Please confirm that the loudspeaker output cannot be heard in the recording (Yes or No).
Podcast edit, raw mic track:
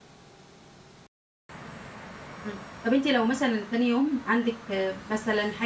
Yes